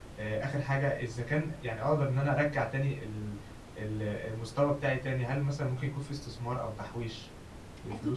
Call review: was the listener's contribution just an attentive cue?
No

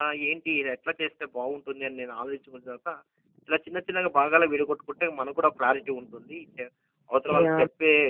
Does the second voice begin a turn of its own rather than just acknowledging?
No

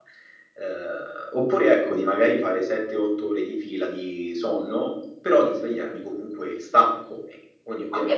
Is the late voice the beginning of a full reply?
Yes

